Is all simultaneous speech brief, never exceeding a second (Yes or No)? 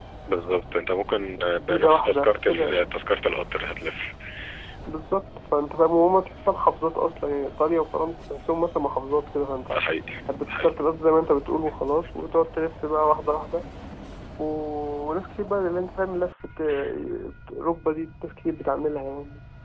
No